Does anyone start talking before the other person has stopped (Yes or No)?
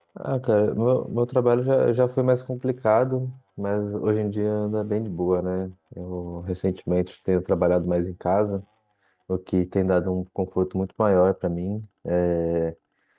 No